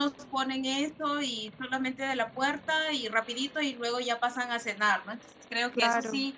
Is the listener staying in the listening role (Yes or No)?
Yes